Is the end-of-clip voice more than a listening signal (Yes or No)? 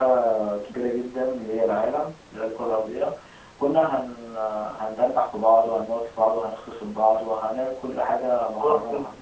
Yes